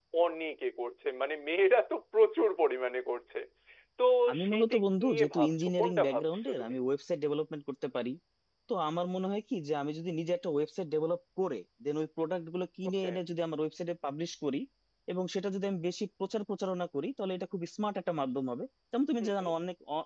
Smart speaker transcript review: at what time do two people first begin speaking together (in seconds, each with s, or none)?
4.5 s